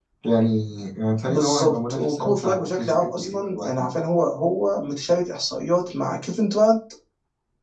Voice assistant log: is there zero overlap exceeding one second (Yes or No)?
No